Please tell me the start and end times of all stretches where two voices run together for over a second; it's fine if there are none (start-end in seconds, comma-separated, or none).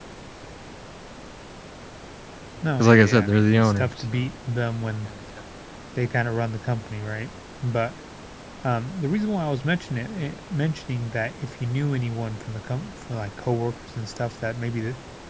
2.8-4.2